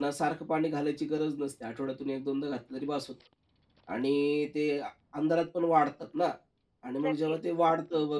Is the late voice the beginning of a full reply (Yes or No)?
No